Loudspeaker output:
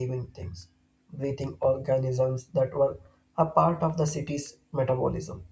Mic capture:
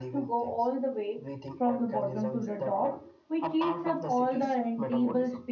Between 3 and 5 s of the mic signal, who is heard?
both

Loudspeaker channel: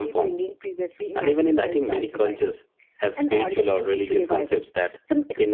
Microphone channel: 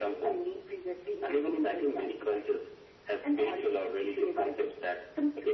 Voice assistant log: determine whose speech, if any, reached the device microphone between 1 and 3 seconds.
echo only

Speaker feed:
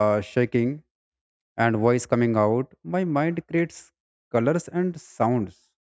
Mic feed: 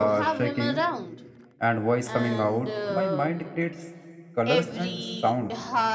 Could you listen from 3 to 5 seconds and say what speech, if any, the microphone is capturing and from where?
both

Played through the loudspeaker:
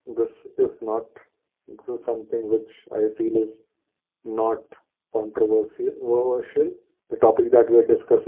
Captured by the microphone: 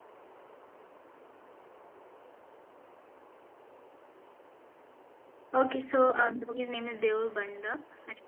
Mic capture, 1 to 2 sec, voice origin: neither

